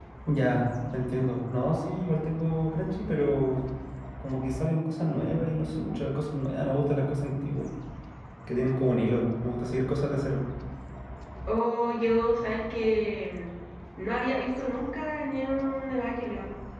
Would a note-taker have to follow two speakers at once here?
No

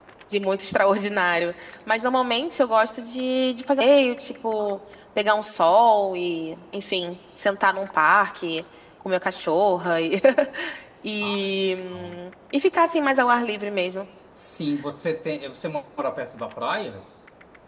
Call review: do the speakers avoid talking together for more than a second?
Yes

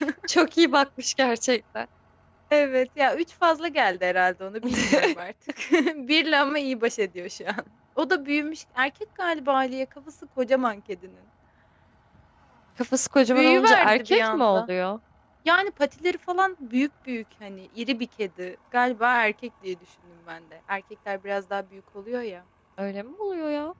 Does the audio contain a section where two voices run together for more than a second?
Yes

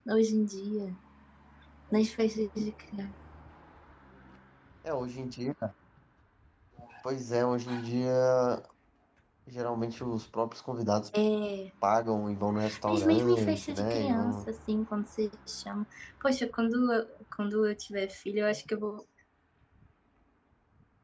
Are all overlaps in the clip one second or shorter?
No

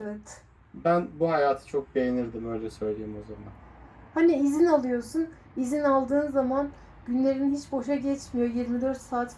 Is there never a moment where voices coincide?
Yes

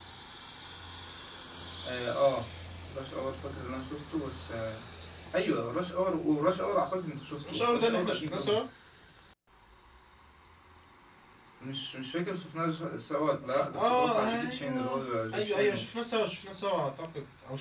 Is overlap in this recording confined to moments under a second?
No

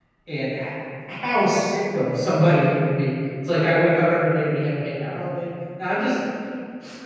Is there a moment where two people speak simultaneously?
No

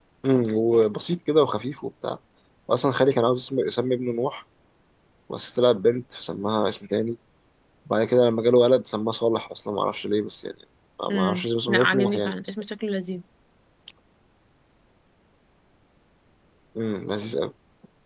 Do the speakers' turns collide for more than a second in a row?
Yes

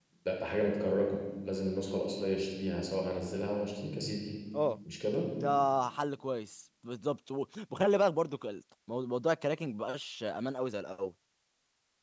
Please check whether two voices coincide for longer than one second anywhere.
No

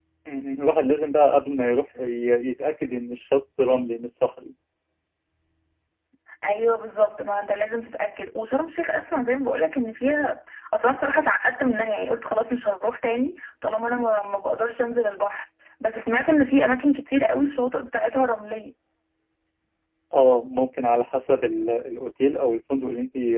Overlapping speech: No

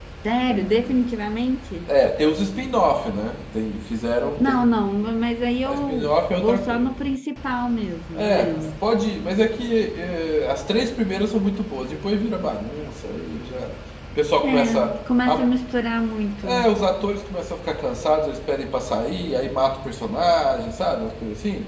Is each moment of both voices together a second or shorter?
No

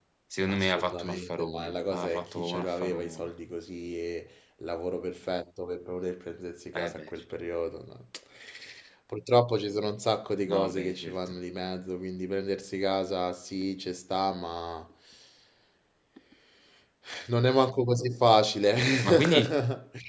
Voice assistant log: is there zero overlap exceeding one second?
No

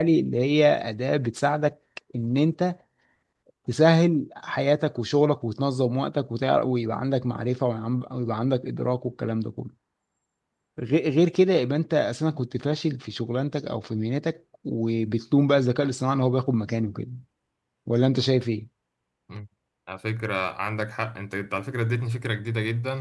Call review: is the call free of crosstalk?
Yes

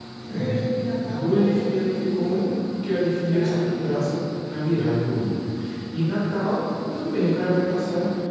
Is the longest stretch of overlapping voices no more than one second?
No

